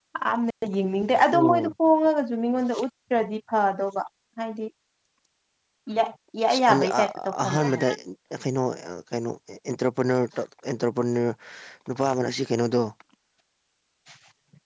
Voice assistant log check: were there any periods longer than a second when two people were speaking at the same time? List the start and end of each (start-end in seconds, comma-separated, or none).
6.5-7.9